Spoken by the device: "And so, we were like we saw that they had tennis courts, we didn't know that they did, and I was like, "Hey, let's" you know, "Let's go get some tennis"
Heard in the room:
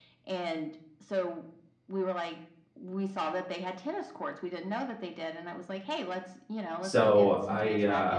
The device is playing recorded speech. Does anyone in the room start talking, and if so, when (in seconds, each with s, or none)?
6.8 s